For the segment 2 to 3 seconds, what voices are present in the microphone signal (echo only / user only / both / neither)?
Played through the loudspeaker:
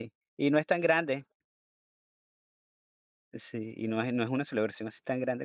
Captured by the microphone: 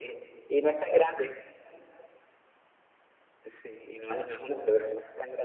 neither